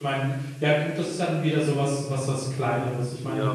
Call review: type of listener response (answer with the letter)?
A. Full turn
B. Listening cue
B